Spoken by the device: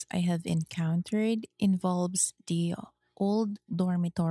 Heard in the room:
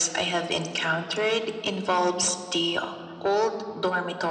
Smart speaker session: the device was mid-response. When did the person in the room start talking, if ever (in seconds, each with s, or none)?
none